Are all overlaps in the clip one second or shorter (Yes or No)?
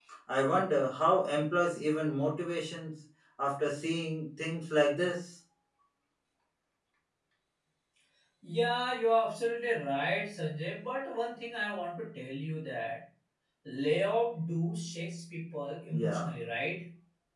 Yes